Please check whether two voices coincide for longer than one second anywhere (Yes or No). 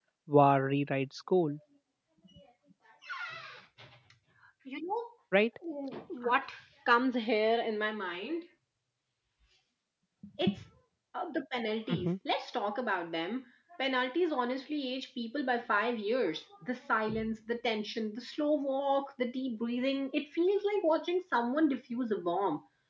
No